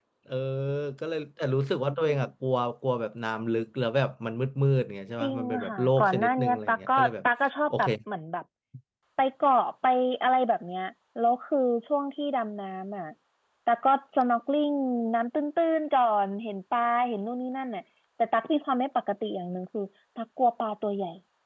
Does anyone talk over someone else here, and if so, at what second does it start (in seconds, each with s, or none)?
5.2 s